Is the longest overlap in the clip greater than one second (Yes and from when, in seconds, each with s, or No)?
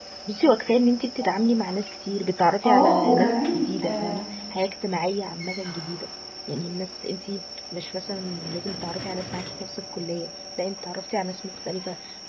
Yes, from 2.6 s